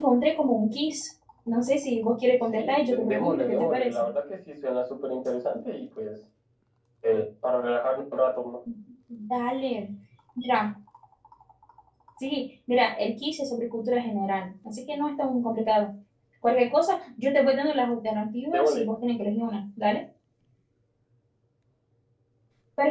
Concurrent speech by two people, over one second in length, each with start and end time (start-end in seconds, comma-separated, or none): 2.5-4.0